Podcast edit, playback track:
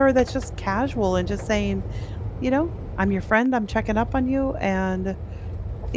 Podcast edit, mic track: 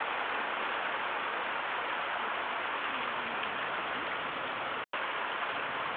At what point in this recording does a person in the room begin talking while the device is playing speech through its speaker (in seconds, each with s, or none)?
none